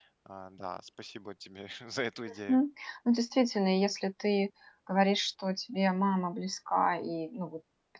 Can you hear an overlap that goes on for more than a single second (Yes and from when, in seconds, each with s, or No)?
No